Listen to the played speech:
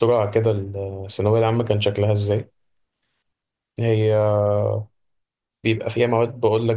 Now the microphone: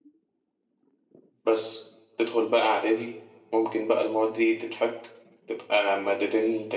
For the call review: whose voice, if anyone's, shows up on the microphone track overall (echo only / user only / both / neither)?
user only